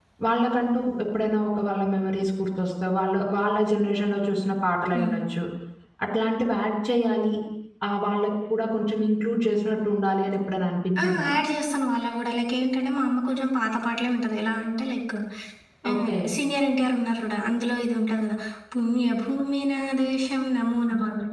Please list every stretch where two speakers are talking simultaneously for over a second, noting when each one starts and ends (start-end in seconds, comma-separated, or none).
none